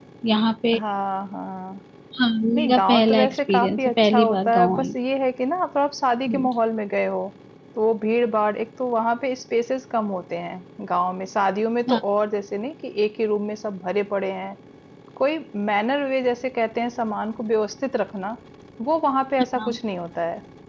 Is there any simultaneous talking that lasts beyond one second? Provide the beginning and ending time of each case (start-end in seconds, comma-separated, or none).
2.5-4.9